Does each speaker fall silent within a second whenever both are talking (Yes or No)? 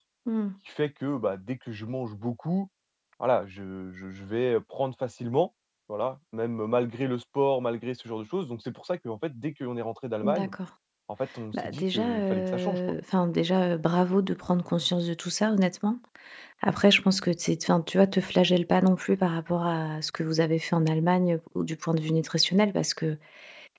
No